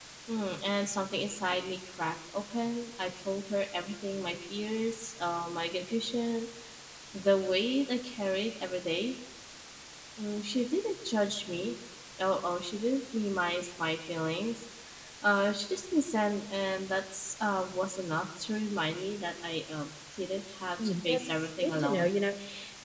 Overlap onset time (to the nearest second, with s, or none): 21 s